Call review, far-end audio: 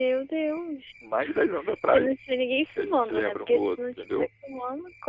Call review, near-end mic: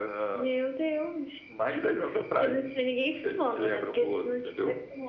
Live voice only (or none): none